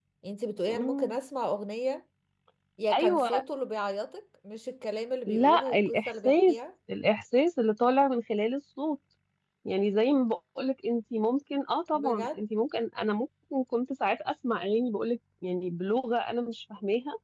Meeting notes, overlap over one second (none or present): present